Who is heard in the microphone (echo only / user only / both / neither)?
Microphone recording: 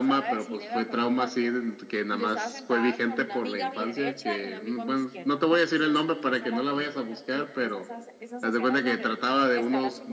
both